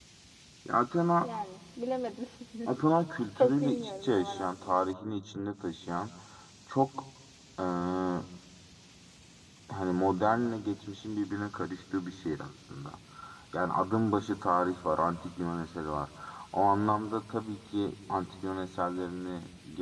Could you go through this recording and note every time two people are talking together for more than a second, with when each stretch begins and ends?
3.4-4.8

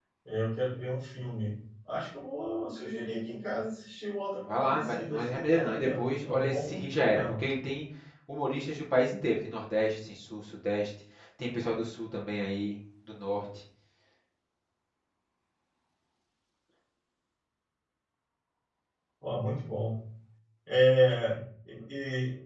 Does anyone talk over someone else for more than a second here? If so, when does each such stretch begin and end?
4.5-7.4

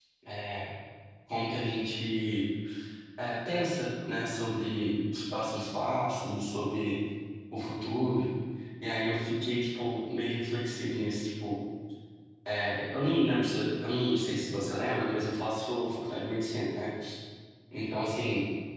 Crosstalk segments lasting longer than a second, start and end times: none

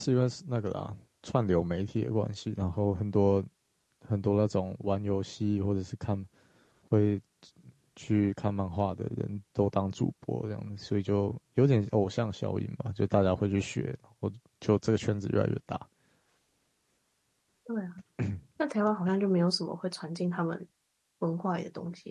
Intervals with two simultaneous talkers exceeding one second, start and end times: none

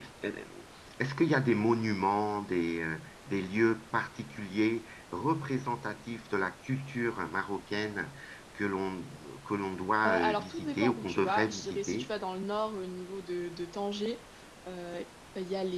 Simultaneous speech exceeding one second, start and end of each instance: 10.1-12.1

